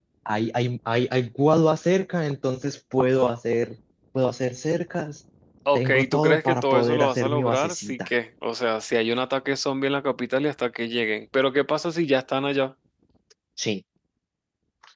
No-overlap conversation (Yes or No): No